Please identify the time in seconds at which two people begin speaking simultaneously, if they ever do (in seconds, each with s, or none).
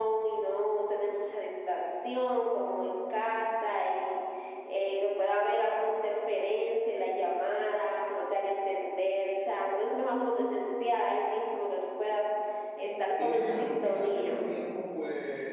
13.2 s